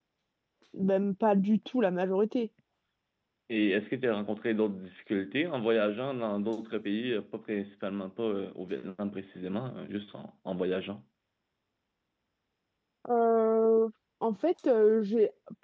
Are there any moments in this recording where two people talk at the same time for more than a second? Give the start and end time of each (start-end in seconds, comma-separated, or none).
none